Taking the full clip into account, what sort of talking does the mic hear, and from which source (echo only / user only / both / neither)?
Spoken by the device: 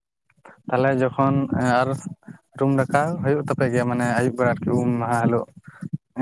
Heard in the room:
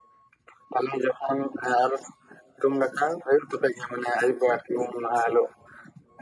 echo only